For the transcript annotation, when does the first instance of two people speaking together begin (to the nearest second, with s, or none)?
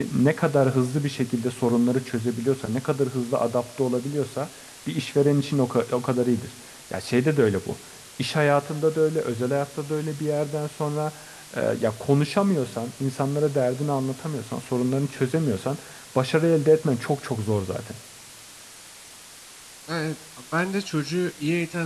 none